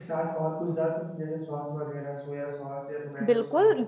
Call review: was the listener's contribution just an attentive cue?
No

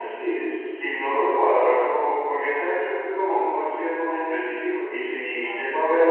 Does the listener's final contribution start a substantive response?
No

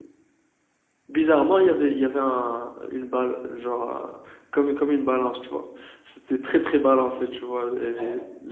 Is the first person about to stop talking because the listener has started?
No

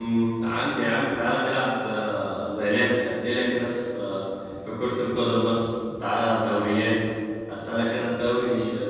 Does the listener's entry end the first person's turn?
No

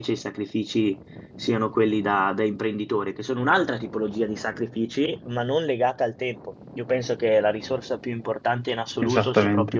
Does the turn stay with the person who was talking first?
Yes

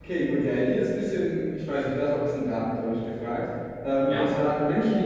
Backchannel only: Yes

